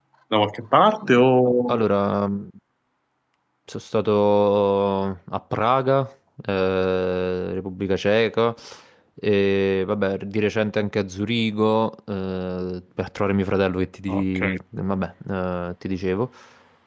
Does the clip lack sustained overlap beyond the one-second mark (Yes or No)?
Yes